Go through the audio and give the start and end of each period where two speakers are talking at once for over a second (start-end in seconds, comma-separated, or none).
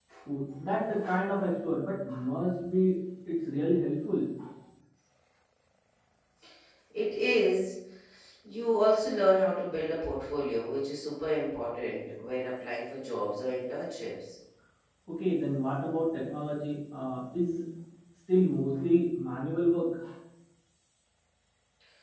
none